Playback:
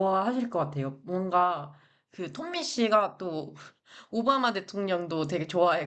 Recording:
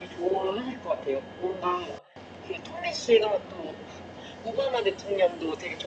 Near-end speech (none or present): none